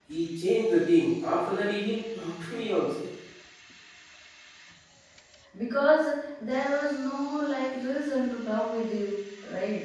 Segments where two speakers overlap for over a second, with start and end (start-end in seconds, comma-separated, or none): none